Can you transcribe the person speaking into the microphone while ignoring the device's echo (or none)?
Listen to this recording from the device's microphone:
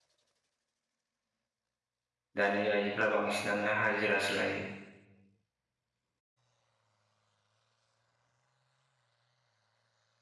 दानि आइजोफ्रा बांसिनानो हाजिरासो लायो।